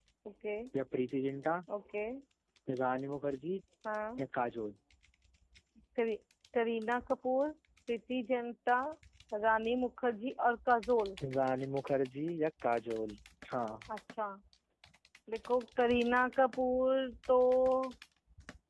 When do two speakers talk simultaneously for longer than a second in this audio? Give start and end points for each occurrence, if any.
none

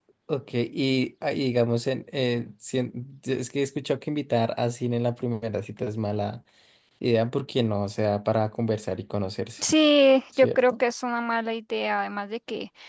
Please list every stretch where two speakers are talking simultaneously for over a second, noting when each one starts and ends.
none

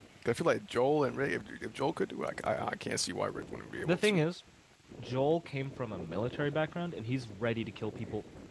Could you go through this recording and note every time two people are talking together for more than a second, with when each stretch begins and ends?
none

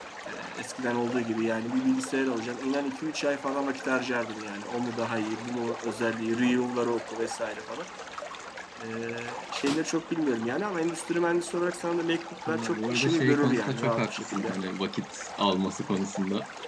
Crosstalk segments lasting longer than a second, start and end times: 12.5-14.6

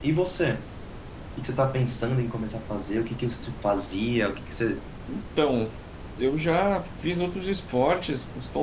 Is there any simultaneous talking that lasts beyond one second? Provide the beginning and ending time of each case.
none

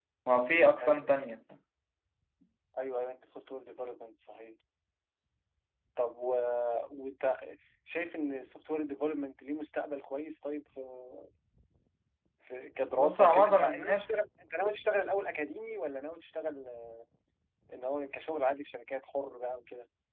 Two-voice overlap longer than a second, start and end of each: 13.0-14.2

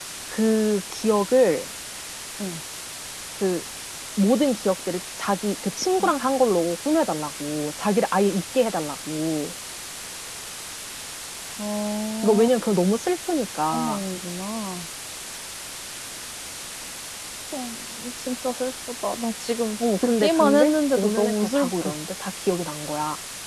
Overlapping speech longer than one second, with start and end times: 20.0-21.9

